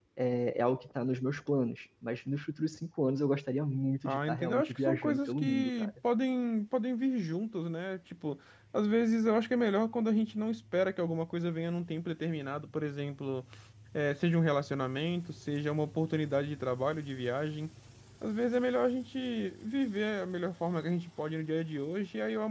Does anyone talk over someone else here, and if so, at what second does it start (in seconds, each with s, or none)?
4.0 s